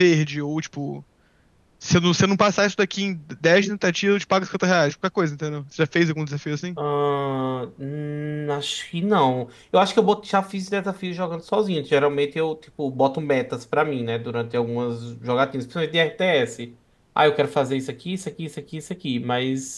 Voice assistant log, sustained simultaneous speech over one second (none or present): none